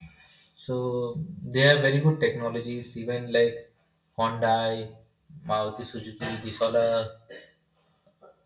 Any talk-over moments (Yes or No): No